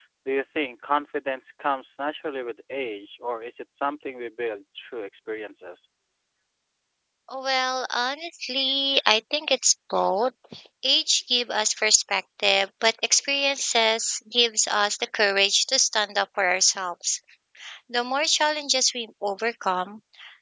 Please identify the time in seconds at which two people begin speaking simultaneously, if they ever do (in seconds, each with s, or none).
none